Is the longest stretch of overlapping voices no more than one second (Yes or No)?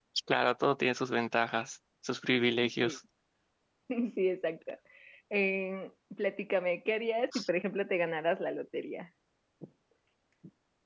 Yes